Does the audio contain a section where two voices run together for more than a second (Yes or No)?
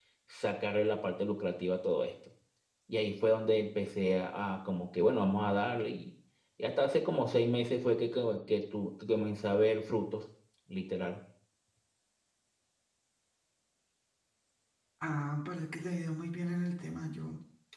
No